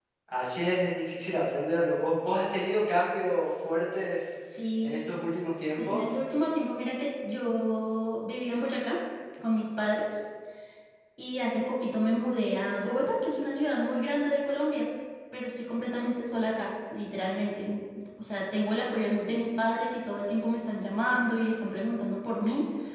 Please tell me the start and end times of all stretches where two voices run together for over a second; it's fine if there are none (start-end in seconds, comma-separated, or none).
none